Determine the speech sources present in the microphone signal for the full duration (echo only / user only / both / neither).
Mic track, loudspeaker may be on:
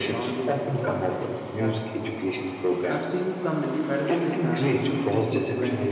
both